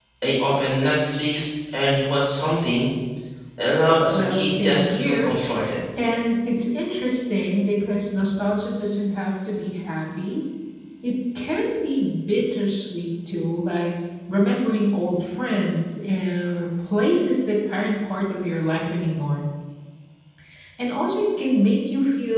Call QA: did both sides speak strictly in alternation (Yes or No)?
No